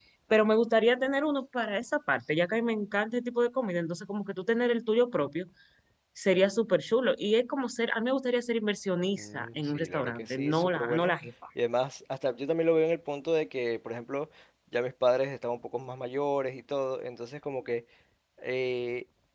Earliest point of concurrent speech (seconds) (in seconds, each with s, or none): 9.2 s